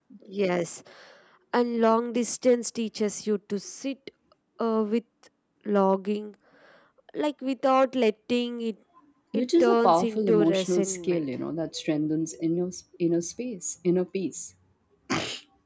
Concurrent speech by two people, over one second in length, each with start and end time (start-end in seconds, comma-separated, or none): 9.3-11.4